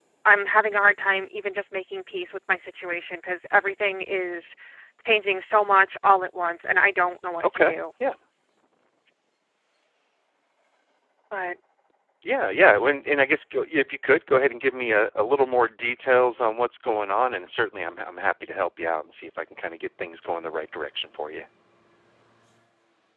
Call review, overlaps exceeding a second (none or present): none